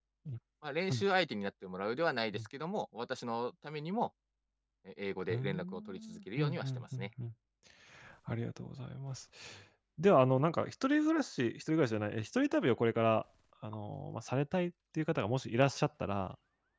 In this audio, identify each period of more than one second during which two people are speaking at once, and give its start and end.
5.3-7.1

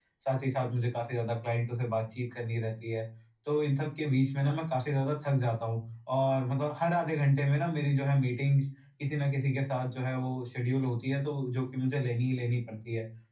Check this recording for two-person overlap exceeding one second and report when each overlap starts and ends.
none

